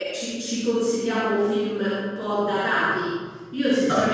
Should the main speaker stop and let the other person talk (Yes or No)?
No